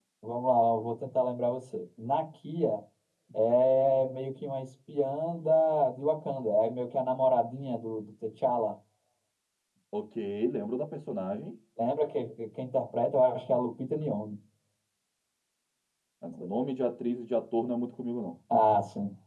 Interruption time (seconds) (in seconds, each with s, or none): none